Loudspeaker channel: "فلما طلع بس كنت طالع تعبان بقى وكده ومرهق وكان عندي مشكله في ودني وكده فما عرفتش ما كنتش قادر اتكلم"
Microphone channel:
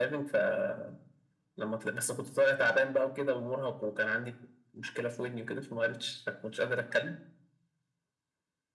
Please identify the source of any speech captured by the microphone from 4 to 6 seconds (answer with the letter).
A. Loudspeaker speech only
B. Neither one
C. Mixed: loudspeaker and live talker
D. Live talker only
A